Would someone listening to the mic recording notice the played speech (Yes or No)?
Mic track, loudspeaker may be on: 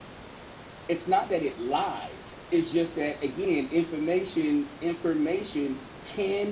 No